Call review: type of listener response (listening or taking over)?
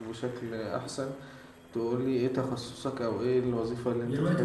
taking over